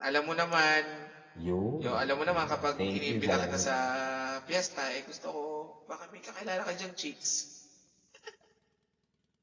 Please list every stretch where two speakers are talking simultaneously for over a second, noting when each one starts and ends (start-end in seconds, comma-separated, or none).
2.3-3.7